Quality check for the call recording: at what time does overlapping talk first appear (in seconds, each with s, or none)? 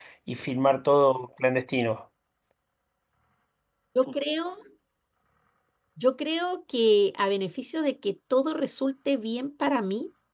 none